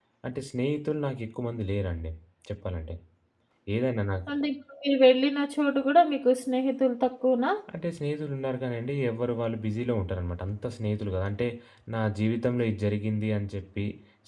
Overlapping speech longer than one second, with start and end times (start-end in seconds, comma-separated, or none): none